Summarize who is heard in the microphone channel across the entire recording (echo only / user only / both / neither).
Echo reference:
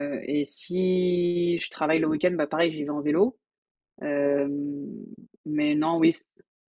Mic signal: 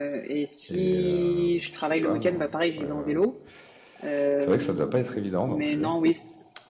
both